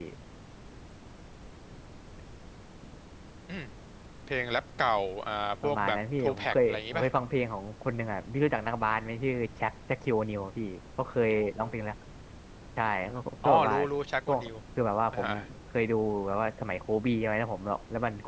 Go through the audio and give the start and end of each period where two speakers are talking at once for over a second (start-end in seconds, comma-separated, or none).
5.6-7.1